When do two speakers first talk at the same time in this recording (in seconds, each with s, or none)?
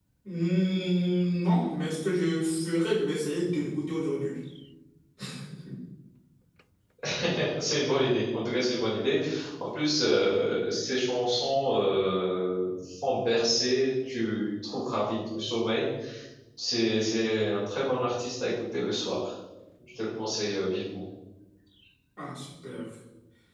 none